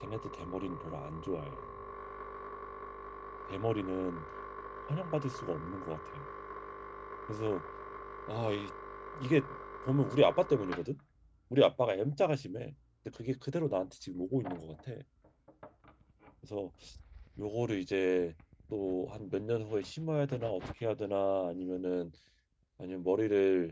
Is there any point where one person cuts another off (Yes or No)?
No